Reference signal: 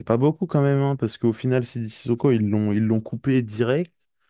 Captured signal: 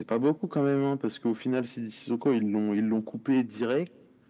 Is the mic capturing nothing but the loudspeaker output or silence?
Yes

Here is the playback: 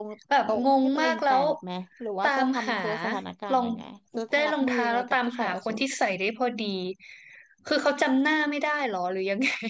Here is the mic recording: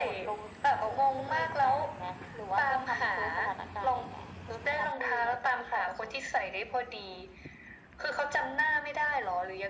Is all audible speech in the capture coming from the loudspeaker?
Yes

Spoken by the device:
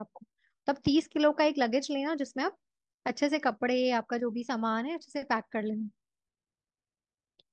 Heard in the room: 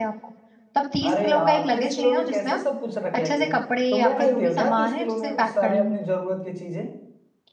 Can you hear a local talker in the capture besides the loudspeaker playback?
Yes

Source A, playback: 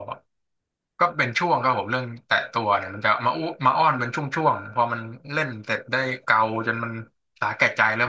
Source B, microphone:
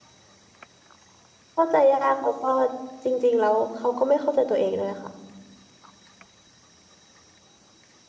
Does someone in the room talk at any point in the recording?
Yes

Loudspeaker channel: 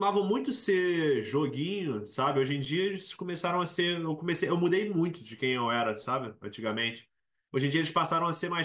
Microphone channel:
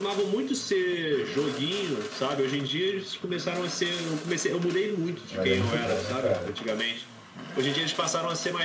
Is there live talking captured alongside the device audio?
Yes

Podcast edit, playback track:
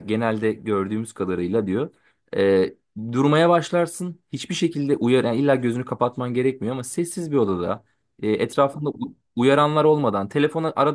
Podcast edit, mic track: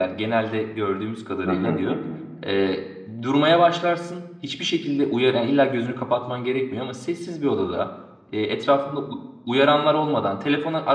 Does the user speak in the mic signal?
Yes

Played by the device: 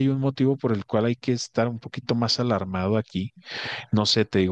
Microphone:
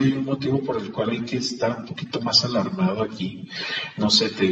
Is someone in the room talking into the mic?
No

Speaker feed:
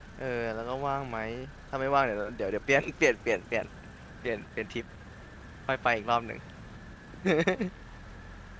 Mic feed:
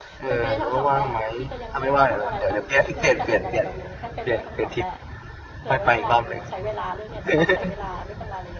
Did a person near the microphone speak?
Yes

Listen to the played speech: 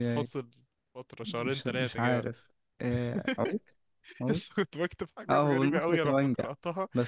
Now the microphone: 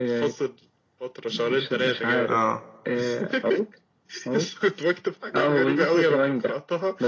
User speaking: Yes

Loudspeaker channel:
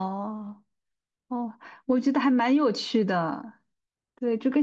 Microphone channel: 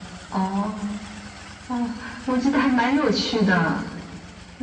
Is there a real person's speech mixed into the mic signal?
No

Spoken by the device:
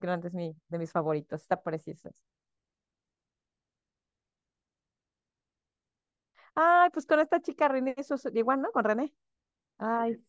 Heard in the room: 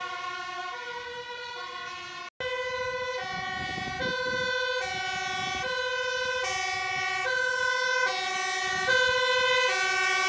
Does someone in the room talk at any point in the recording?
No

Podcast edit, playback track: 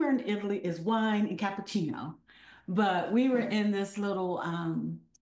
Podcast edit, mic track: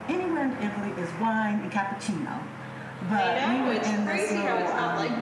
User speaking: Yes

